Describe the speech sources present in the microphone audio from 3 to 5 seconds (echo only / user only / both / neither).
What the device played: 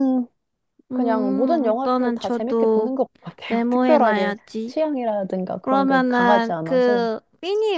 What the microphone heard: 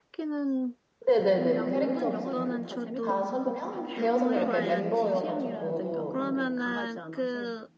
both